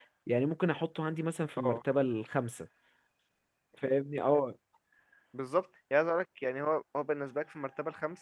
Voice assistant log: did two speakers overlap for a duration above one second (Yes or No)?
No